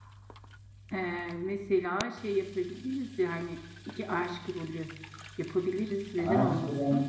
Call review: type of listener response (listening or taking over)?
taking over